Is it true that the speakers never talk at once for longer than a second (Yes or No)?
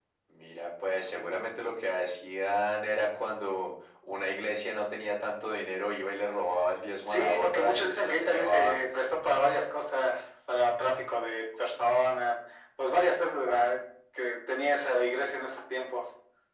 No